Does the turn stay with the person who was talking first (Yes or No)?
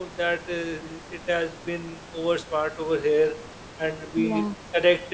Yes